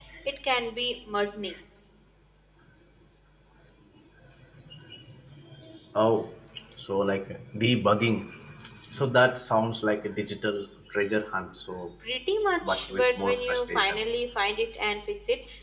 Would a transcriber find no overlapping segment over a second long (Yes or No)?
No